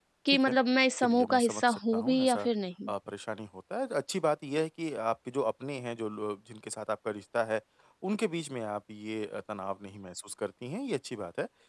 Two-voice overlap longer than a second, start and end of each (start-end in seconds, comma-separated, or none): 1.0-2.5